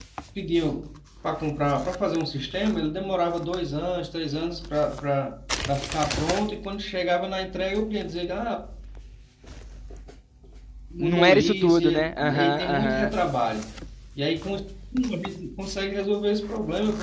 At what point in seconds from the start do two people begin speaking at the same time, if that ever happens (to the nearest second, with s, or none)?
11 s